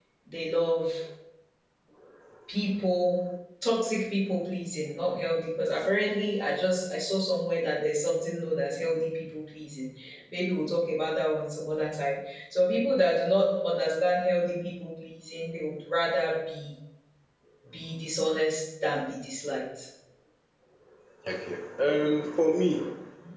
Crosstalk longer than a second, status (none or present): none